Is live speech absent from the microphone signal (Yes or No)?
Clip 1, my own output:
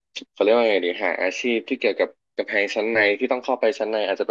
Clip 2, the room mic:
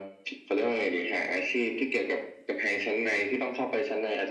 Yes